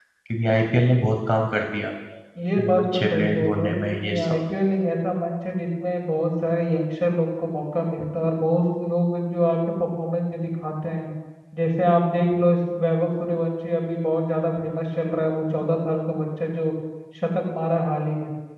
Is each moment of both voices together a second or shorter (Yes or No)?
No